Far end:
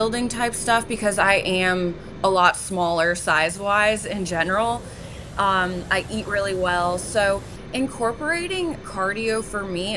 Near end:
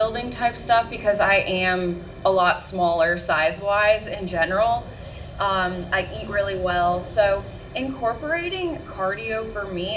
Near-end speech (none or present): none